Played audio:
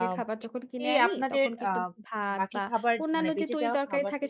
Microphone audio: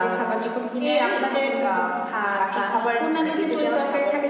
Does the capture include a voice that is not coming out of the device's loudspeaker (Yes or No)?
No